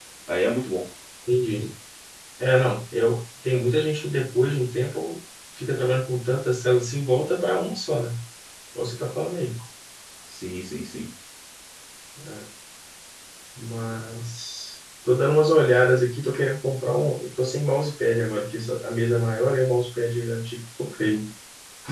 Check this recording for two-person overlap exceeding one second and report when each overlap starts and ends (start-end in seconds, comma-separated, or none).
none